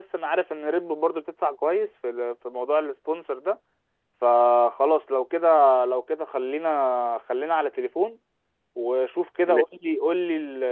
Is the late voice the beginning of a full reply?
No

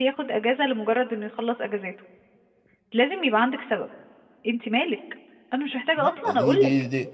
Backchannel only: No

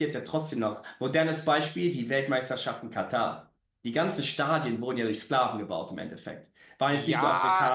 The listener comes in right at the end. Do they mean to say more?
Yes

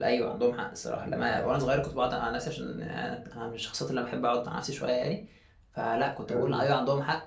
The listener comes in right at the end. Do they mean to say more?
No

